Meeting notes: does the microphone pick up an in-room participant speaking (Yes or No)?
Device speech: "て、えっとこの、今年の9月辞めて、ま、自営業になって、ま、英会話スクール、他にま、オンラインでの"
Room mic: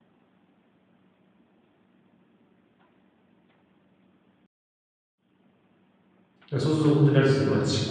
Yes